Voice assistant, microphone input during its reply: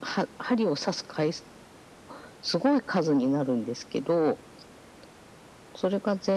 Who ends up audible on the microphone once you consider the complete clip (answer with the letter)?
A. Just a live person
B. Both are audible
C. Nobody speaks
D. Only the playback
D